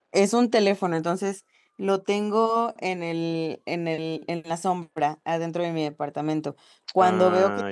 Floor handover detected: No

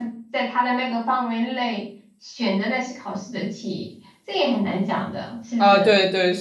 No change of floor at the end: No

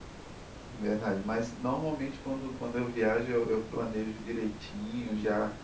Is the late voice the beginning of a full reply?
No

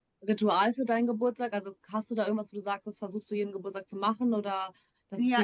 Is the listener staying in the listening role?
No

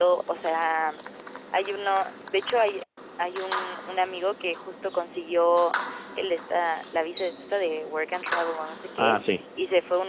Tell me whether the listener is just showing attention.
Yes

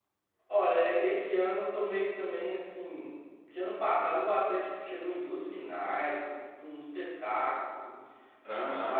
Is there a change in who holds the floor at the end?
No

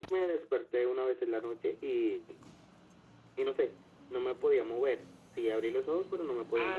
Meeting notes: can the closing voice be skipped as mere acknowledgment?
No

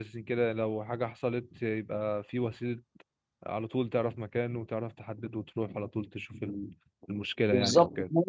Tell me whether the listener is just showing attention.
No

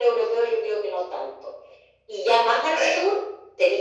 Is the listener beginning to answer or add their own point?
No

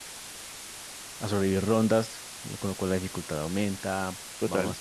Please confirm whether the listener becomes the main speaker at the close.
No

